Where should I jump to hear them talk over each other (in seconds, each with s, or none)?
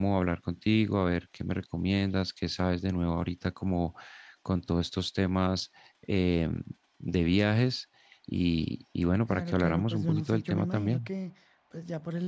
9.3 s